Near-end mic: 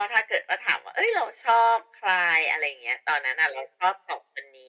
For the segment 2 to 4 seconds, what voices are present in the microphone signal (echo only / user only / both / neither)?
echo only